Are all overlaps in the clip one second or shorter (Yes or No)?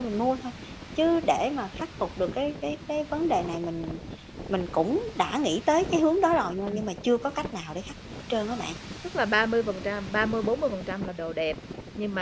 Yes